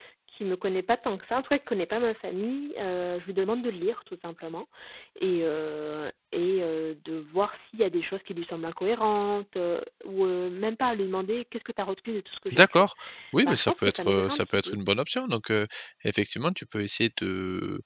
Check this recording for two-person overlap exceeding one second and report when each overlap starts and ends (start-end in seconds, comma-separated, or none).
13.4-14.8